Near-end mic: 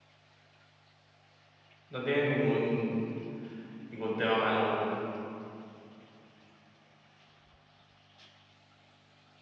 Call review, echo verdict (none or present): none